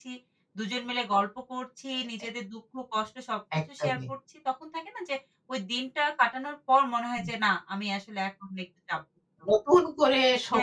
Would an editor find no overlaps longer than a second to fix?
Yes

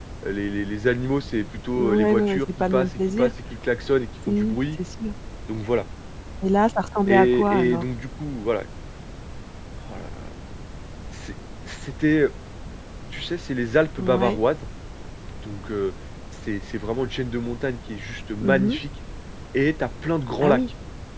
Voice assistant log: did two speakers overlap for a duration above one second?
Yes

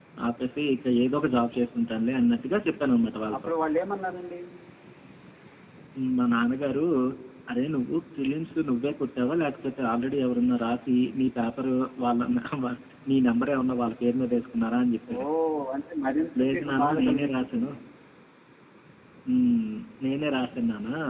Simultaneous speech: Yes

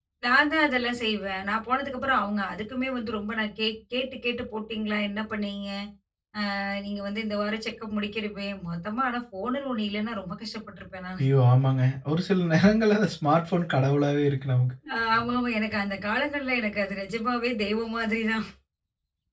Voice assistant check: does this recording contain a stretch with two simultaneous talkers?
No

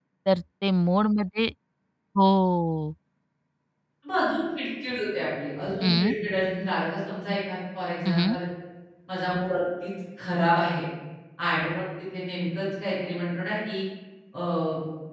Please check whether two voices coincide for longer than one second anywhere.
No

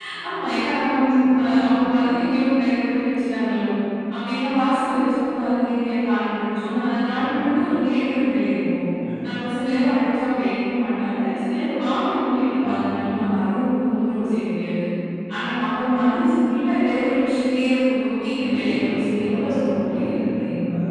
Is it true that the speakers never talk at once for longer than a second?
No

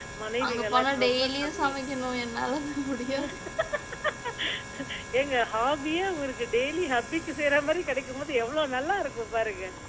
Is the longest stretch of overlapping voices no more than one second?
No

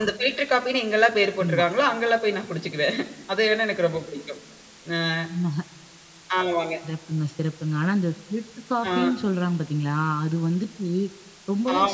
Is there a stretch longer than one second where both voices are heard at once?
No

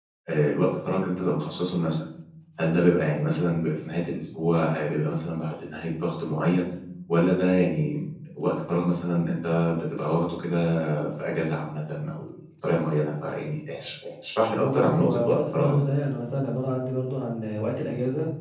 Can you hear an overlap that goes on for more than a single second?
Yes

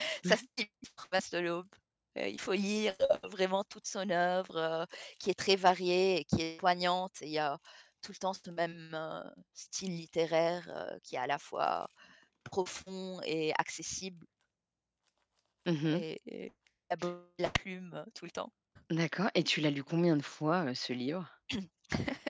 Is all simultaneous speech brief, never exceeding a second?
Yes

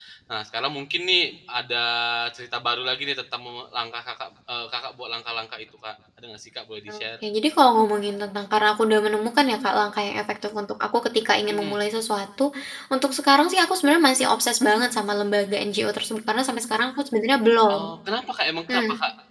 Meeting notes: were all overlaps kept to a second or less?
Yes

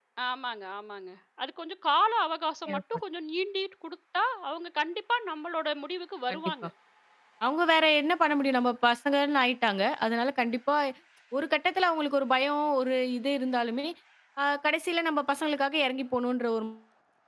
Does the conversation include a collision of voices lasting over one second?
No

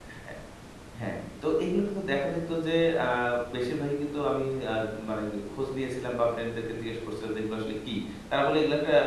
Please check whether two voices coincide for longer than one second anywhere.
No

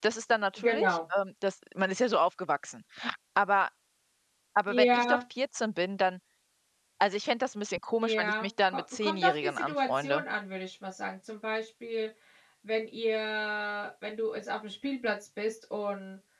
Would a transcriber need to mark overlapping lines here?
Yes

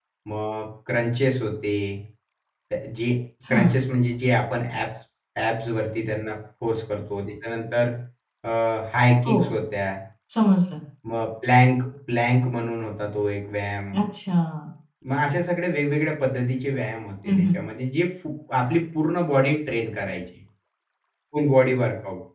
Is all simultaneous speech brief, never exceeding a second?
Yes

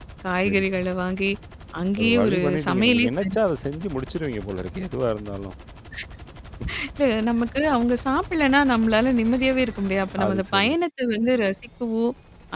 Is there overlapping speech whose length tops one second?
Yes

